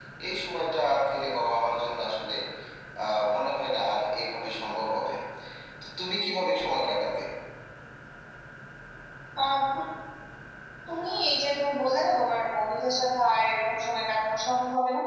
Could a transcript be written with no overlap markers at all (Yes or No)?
Yes